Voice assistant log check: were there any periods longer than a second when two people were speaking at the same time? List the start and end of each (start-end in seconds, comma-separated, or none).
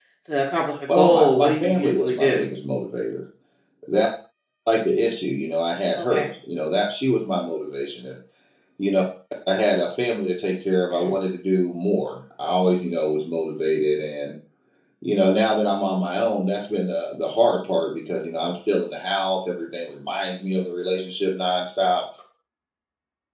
0.9-2.4